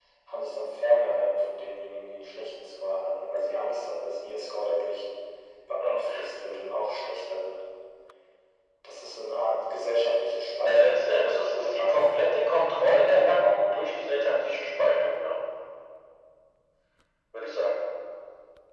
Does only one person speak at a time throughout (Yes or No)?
No